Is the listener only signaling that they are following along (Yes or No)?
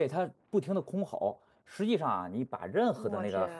Yes